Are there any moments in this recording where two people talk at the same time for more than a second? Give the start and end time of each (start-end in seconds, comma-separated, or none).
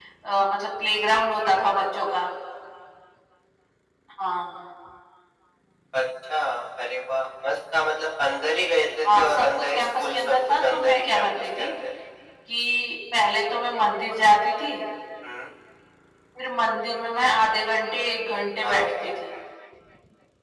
9.0-11.7